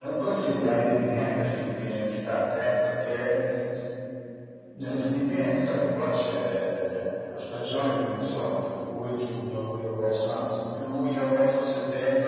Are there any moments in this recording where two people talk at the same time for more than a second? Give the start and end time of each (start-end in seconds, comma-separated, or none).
none